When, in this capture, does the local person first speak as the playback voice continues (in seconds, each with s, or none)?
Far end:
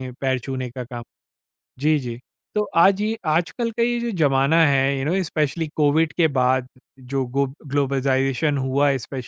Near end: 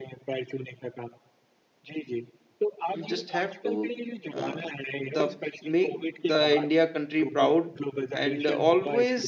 2.9 s